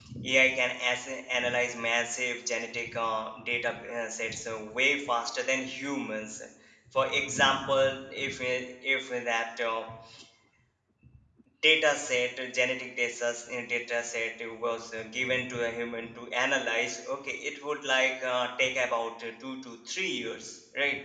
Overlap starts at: none

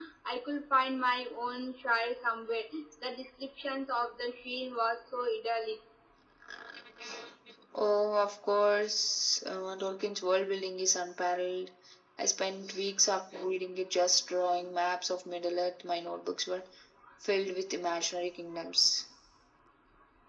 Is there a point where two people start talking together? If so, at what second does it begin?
none

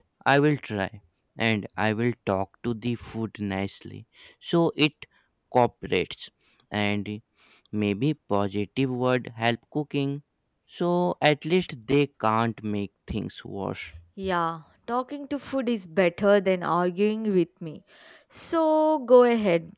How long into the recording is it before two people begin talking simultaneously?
none

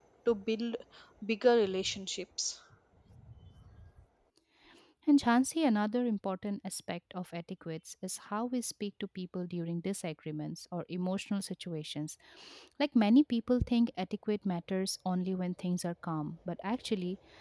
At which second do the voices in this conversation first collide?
none

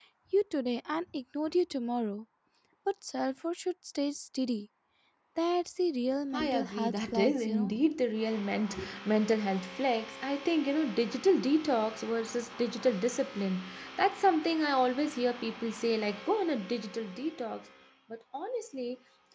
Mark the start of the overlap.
6.3 s

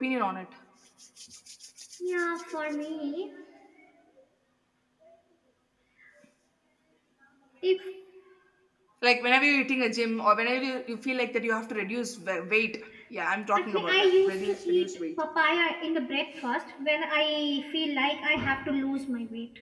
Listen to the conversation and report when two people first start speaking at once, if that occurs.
13.6 s

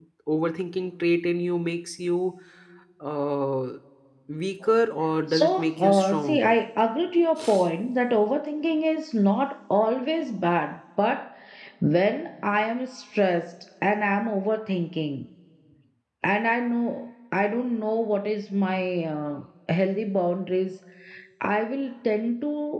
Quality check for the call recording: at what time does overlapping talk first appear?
5.3 s

